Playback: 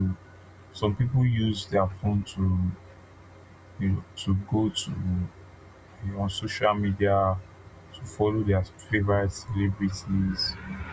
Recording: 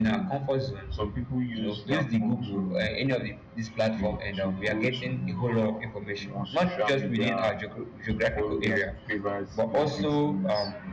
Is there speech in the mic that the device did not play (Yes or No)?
Yes